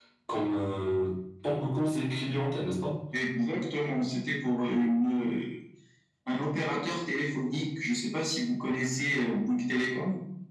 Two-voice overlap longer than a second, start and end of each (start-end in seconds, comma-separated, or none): none